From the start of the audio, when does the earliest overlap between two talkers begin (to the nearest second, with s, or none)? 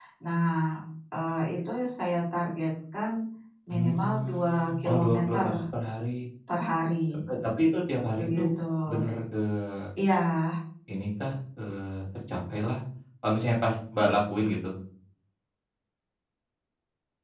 4 s